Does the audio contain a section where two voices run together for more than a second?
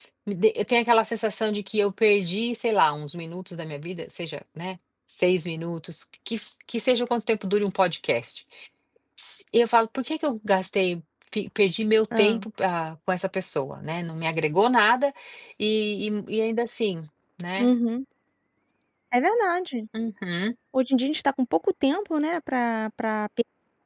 No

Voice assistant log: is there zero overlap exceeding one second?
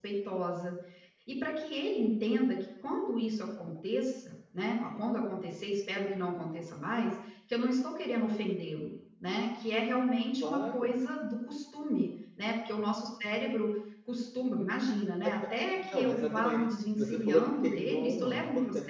No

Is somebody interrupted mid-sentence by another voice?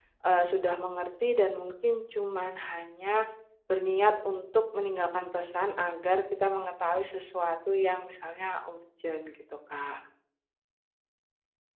No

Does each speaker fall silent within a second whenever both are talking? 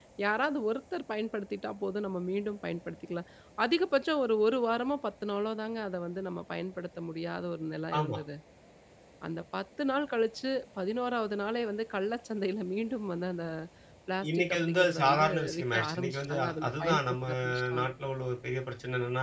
No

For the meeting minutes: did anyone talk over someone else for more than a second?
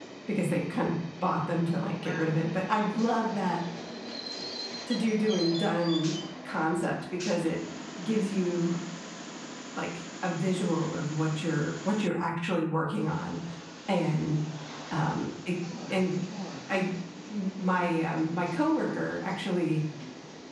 No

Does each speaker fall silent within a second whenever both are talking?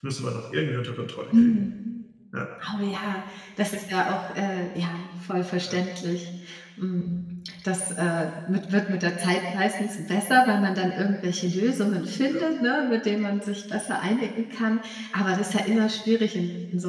Yes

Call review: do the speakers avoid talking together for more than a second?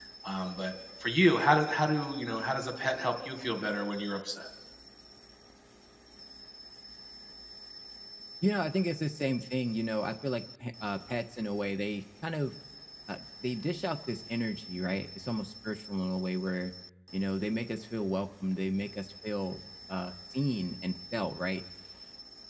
Yes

